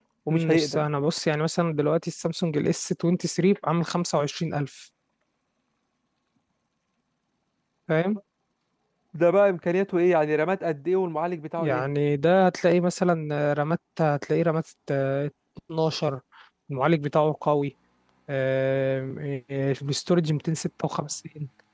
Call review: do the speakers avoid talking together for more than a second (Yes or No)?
Yes